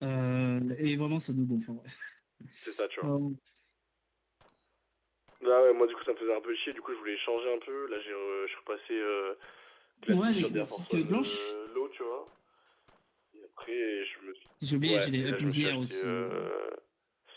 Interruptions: present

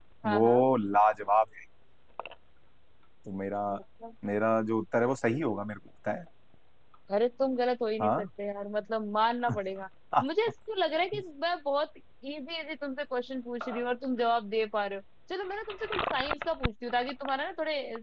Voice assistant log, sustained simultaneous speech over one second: none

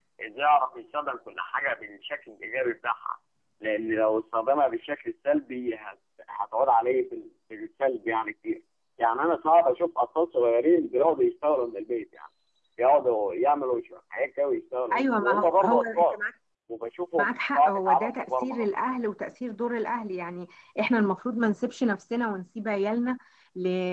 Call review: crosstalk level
present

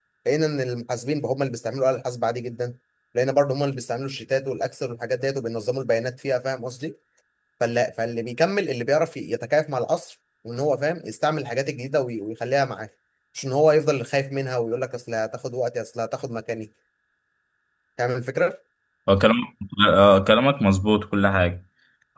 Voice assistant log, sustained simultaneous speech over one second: none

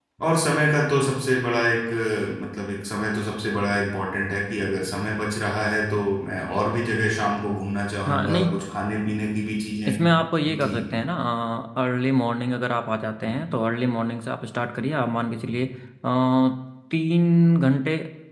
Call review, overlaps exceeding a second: none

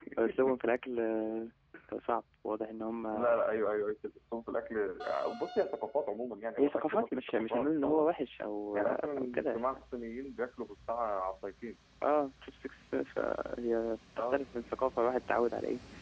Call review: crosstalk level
present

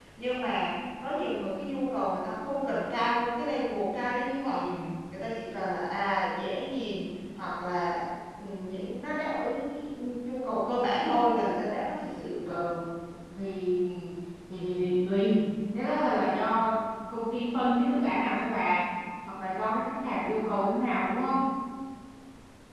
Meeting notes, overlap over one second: none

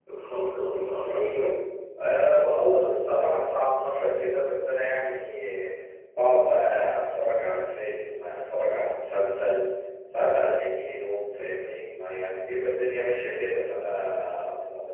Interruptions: none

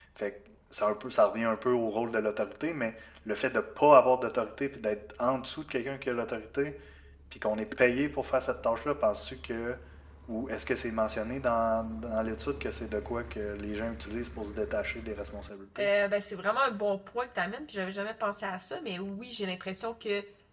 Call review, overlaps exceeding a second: none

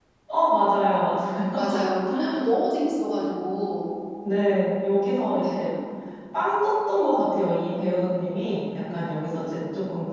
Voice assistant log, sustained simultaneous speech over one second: none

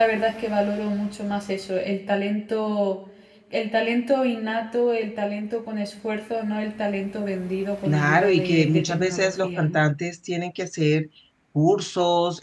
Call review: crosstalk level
present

